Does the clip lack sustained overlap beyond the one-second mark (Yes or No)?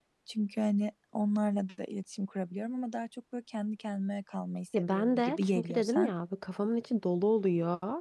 No